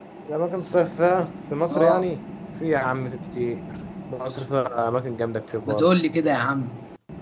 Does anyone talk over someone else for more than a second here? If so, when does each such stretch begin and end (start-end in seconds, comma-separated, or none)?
none